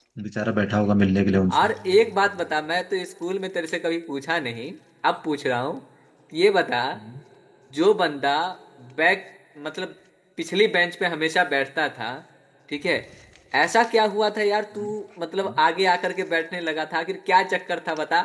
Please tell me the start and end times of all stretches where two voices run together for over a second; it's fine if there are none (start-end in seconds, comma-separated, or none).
none